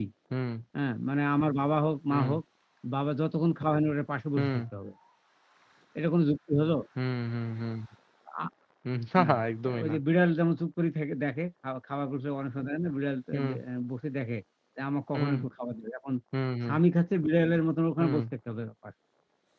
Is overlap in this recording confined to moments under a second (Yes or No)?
Yes